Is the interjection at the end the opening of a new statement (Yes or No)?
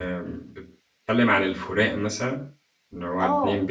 Yes